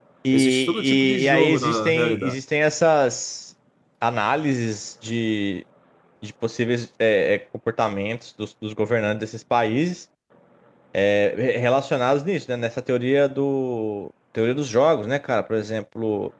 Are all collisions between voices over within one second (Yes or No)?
No